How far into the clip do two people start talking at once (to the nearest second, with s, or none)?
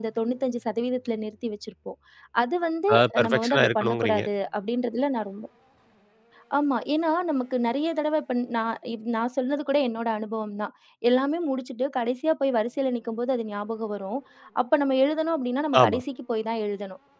3 s